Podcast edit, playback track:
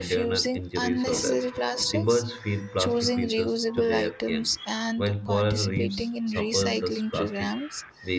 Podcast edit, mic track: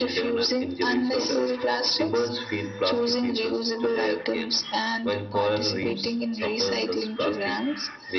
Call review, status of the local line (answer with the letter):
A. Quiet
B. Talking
A